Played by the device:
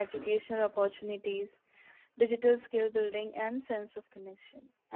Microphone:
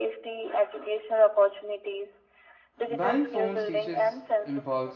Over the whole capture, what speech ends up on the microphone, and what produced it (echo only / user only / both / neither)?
both